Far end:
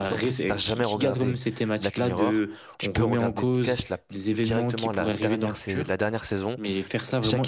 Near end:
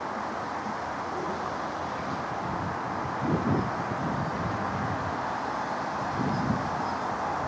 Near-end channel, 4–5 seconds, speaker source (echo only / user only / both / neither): neither